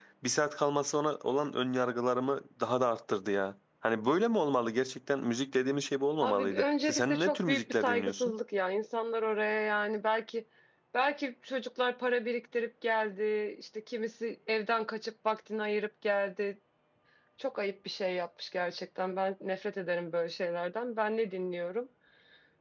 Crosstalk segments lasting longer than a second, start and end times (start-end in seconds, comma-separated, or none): 6.2-8.3